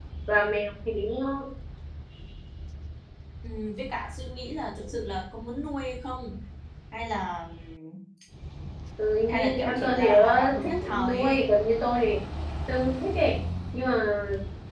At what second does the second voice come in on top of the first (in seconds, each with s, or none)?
9.3 s